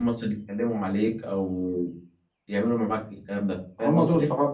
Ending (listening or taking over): taking over